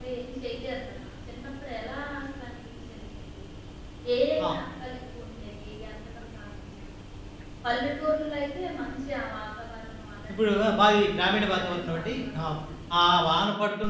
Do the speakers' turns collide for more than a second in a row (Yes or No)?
Yes